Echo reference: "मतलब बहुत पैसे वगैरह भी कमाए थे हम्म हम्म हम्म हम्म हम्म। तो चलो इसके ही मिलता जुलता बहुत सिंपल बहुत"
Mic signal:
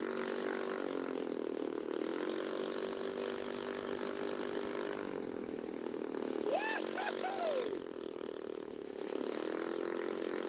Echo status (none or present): none